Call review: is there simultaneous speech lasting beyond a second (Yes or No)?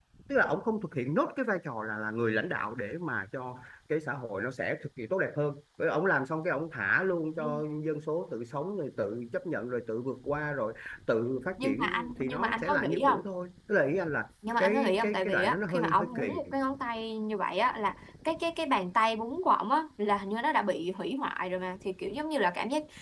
Yes